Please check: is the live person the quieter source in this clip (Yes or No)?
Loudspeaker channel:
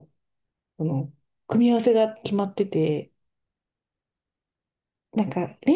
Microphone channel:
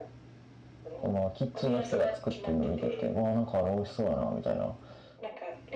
No